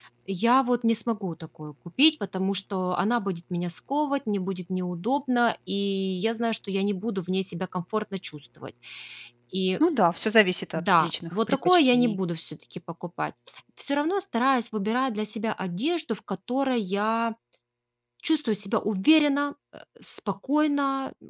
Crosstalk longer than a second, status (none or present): present